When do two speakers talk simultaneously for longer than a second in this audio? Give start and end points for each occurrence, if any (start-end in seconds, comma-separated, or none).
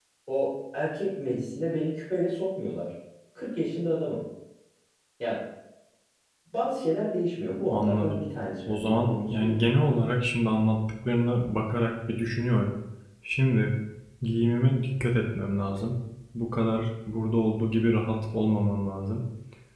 8.7-9.9